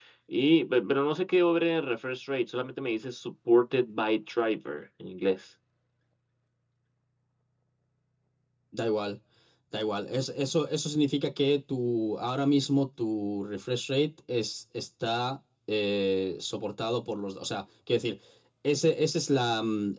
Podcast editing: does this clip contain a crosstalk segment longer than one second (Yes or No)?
No